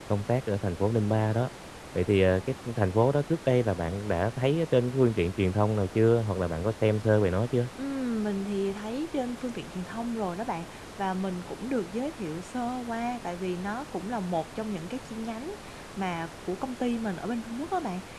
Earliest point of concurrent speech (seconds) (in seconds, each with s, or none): none